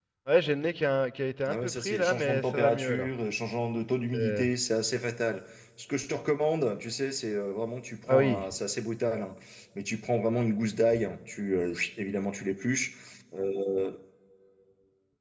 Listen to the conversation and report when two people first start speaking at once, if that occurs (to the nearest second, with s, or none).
1 s